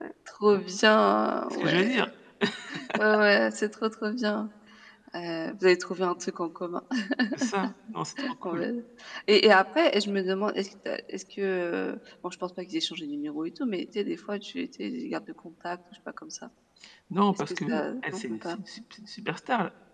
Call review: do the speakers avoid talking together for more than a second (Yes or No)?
No